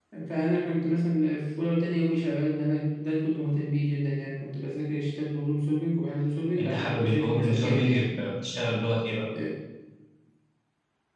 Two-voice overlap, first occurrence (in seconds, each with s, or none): 6.6 s